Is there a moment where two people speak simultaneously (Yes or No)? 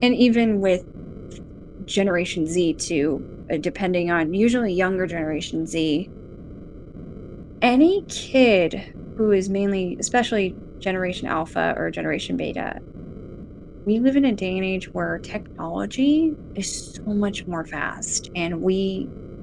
No